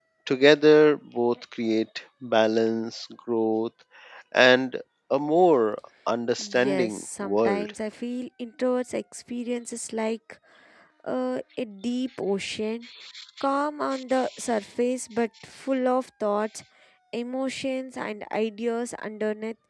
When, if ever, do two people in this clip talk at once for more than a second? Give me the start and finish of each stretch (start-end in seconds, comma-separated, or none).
6.4-7.7